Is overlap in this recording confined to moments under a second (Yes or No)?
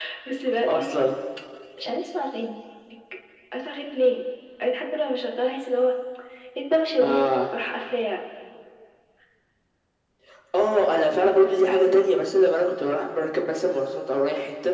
Yes